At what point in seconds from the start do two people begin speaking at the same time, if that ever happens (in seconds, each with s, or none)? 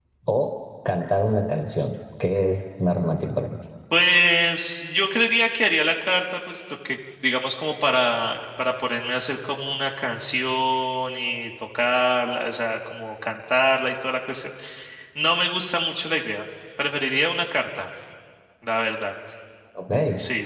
none